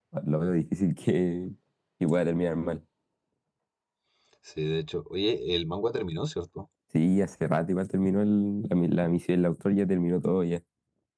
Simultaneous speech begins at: none

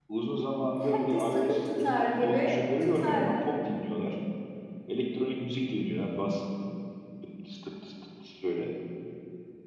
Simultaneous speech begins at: 0.8 s

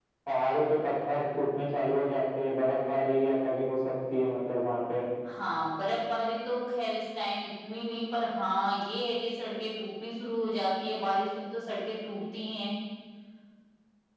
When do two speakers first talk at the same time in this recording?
none

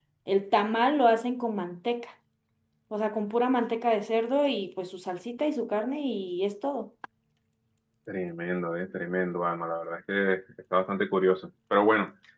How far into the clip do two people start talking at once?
none

